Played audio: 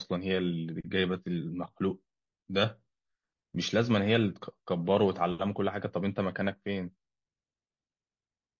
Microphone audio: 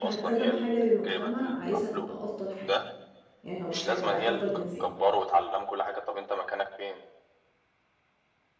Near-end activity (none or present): present